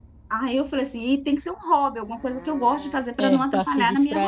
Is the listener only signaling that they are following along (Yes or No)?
No